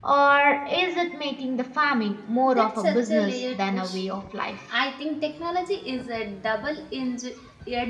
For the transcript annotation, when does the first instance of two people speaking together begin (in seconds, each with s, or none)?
2.5 s